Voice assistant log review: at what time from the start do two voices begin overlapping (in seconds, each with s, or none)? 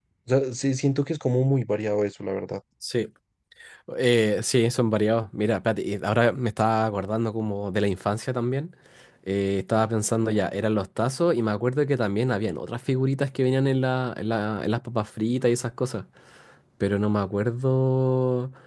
none